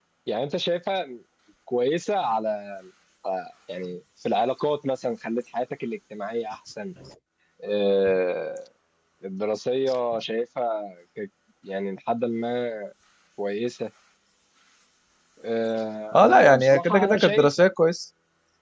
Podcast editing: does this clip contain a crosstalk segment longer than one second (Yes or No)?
Yes